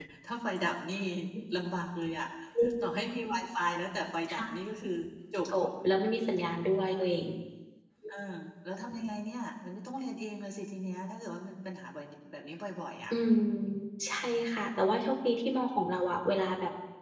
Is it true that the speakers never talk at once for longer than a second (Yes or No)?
Yes